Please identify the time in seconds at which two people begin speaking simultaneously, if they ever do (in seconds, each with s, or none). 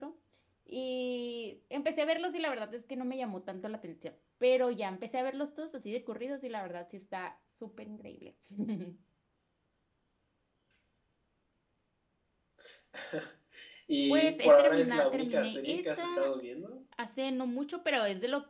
14.1 s